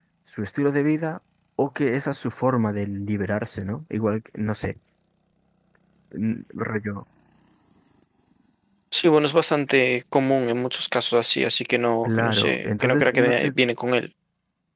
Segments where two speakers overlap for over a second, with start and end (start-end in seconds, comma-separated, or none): 12.0-13.6